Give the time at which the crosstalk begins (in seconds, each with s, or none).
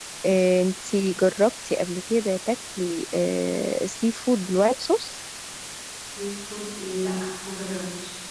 none